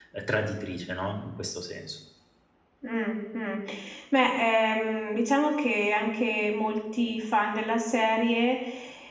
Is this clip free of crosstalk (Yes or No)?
Yes